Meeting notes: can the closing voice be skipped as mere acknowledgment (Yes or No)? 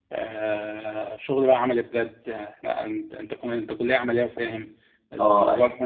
Yes